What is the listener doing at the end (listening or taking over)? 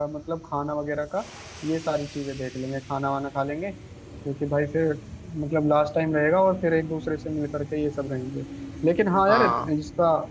listening